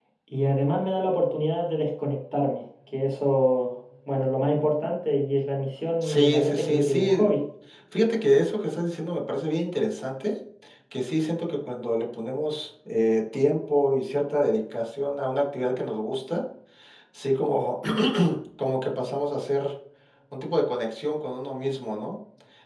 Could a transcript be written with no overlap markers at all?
No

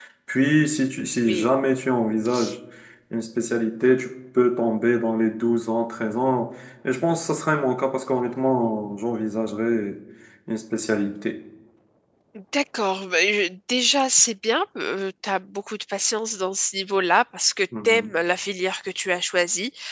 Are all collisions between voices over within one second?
Yes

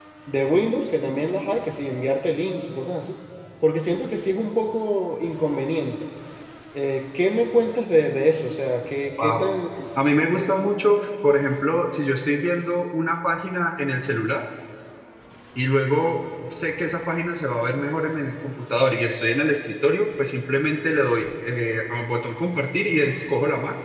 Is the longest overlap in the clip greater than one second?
No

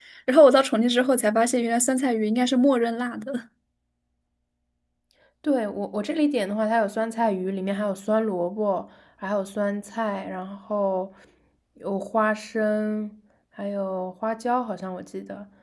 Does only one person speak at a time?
Yes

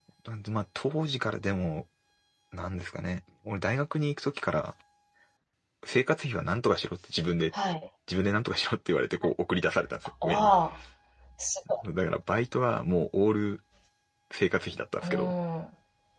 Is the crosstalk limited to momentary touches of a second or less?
Yes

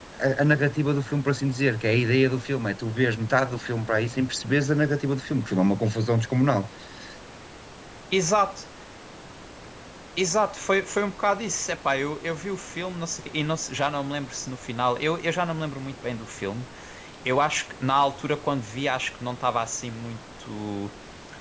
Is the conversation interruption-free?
Yes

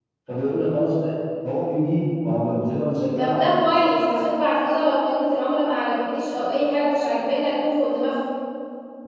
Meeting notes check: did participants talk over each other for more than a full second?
No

